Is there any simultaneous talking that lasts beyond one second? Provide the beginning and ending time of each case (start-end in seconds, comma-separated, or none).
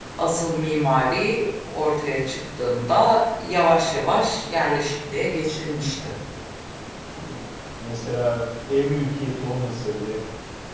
none